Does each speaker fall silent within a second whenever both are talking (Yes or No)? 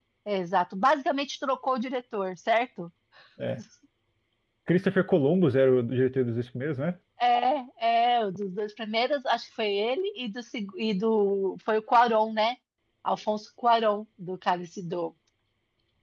Yes